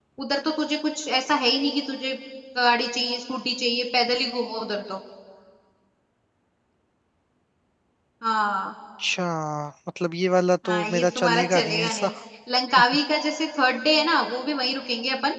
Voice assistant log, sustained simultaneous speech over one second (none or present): present